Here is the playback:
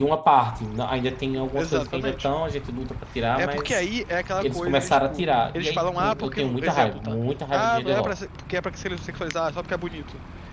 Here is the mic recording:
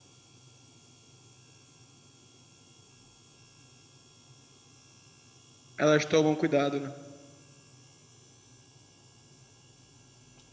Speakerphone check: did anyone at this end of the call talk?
Yes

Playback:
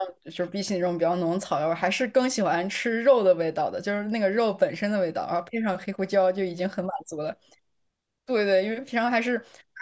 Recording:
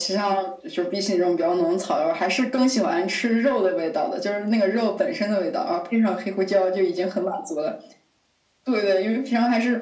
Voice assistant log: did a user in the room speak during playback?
No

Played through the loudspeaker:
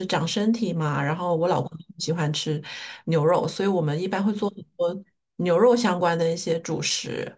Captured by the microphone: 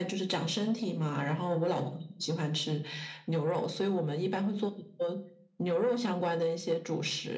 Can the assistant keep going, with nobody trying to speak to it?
Yes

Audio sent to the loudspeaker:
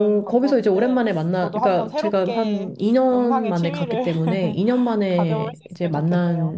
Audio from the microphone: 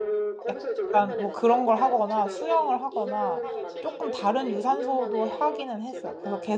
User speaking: Yes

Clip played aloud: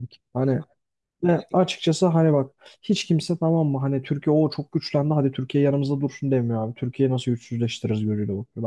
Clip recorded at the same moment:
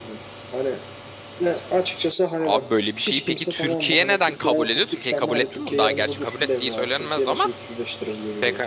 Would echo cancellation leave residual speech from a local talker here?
Yes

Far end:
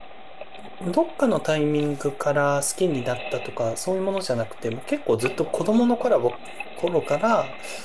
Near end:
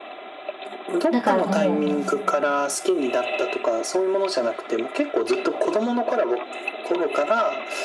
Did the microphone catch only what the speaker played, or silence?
No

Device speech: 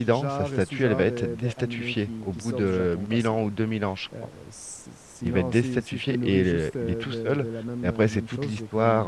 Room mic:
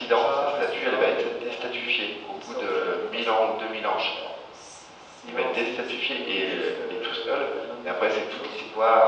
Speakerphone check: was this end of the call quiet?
Yes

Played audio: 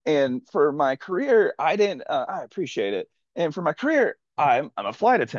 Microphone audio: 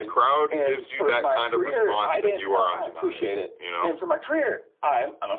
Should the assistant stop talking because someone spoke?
Yes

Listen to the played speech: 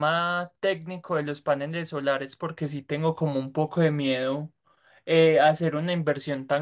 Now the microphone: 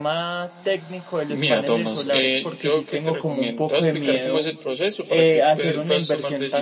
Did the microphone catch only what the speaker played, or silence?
No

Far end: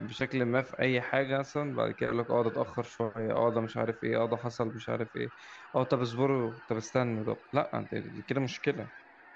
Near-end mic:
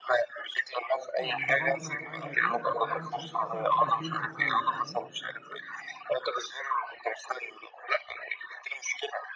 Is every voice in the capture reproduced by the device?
No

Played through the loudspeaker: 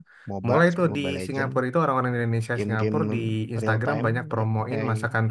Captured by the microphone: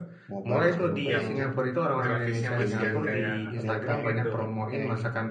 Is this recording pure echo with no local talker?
No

